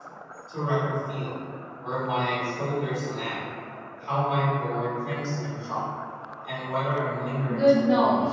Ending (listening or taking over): taking over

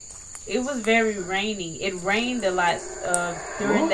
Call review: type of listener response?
listening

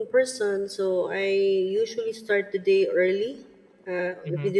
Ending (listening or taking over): listening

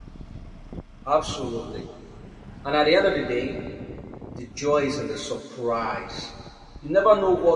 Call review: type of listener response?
listening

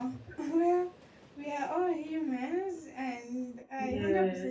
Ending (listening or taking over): listening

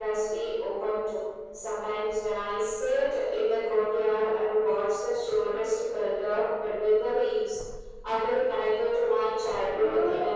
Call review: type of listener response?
taking over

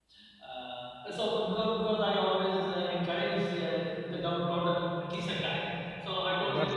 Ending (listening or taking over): listening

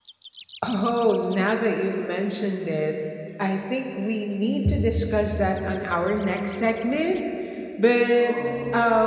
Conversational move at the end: listening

